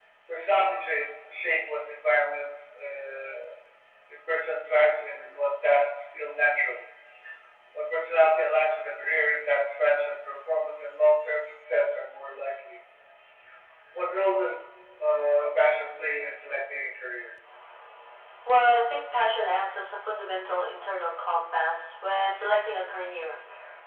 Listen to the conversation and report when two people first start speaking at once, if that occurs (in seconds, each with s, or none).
none